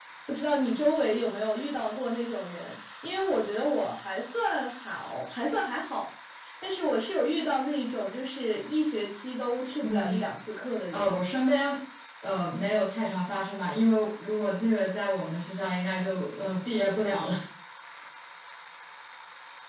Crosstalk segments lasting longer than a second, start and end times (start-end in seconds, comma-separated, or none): none